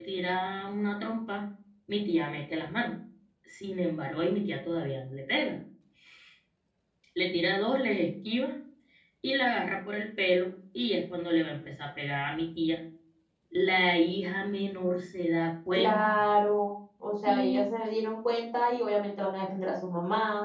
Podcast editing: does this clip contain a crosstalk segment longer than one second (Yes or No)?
No